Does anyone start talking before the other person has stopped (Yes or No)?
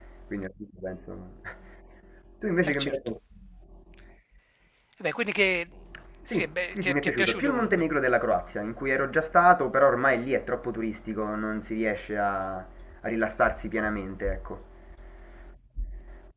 Yes